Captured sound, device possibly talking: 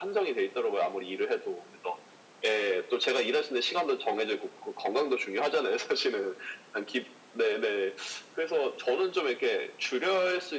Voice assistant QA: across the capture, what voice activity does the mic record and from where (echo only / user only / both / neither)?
echo only